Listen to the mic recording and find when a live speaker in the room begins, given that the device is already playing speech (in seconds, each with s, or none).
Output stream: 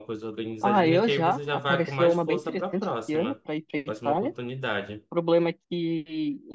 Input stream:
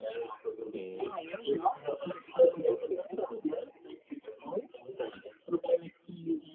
0.6 s